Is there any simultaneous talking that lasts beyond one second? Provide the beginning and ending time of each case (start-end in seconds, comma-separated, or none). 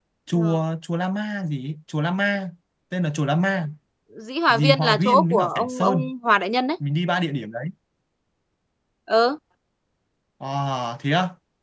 4.5-6.1